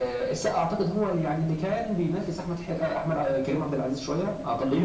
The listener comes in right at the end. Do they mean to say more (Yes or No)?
Yes